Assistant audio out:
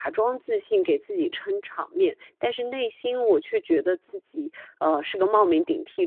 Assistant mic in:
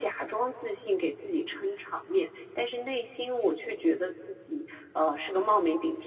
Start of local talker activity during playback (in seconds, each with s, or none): none